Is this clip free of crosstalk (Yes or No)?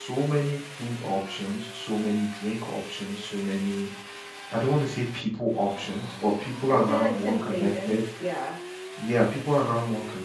No